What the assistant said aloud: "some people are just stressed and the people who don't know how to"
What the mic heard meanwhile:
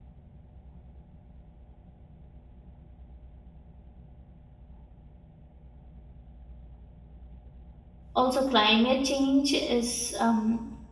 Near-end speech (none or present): present